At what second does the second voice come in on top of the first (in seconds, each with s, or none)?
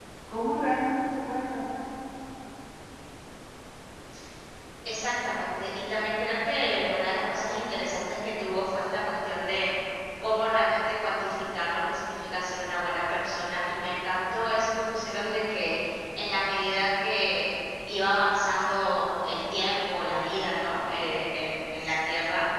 none